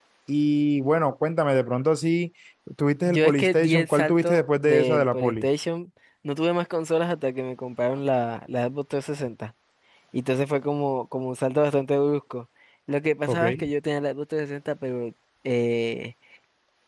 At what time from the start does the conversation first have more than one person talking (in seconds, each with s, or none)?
3.0 s